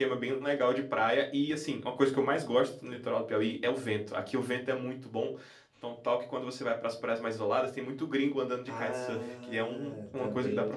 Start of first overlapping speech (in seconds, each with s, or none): 8.7 s